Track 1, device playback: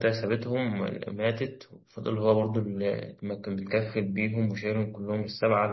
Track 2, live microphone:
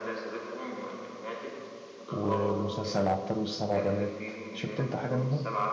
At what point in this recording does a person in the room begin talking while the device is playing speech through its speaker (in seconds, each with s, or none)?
2.1 s